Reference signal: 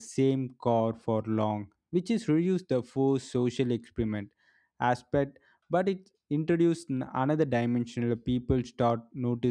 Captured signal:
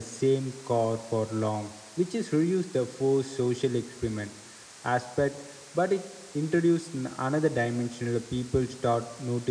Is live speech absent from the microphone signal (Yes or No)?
Yes